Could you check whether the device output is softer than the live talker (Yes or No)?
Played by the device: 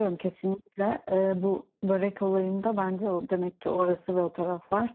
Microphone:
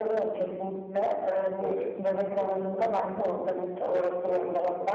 No